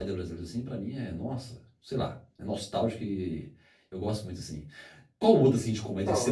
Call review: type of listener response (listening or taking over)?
listening